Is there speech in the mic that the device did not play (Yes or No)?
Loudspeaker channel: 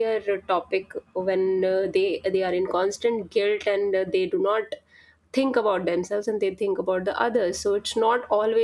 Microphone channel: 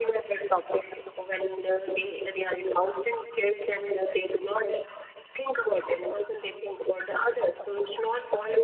No